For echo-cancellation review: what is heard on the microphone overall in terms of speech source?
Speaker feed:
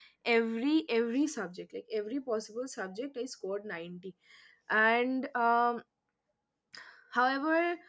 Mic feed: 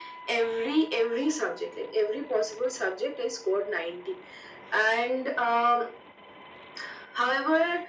echo only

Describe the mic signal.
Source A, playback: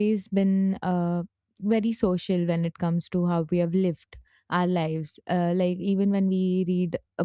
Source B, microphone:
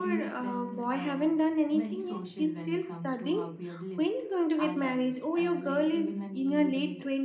both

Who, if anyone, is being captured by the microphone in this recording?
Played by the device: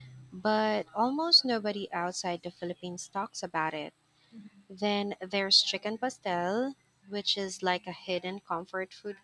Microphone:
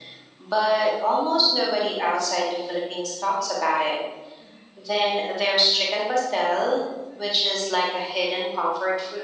echo only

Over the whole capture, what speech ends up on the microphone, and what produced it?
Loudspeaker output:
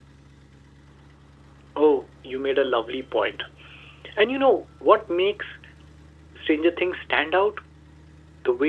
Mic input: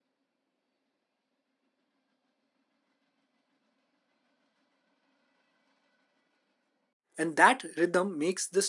user only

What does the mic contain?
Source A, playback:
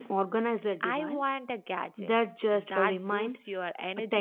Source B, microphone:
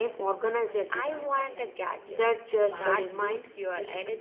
both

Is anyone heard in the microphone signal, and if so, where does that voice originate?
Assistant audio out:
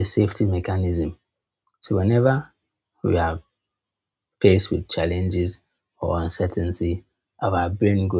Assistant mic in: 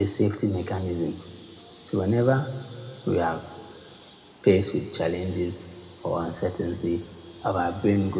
echo only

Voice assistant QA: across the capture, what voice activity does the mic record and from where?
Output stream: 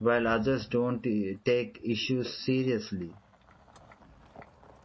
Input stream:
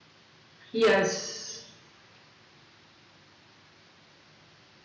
user only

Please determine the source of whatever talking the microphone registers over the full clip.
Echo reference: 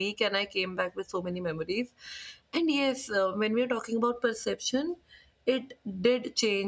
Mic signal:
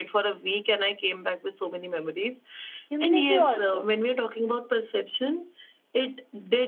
both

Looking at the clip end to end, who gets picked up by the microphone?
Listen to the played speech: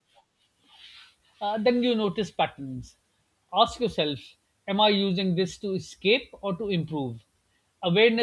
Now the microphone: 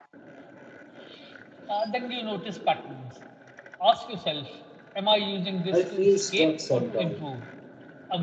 both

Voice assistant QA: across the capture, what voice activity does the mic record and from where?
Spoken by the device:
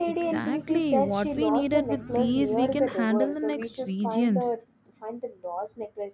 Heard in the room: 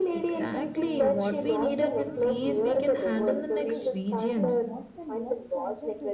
both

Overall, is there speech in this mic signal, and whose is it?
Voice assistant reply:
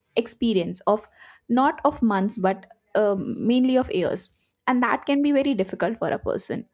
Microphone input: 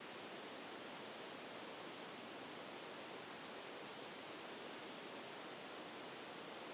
neither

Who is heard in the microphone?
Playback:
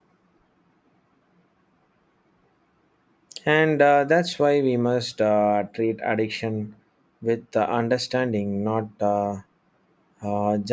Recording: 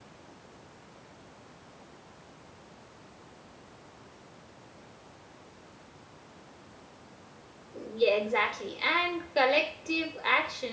user only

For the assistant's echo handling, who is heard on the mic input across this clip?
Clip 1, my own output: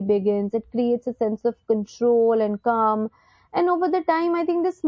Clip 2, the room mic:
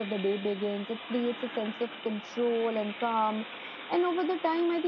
echo only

